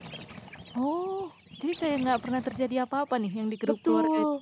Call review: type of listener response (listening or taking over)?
taking over